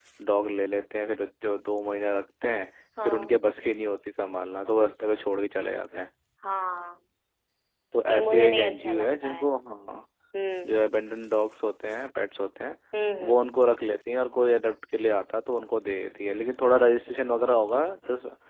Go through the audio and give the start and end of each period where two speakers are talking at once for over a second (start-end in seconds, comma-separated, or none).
8.1-9.4